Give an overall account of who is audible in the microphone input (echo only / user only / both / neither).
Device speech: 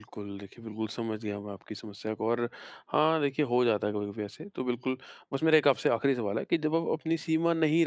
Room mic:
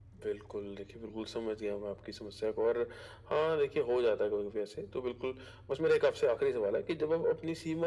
echo only